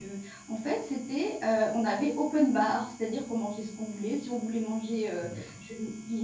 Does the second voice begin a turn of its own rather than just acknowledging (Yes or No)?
No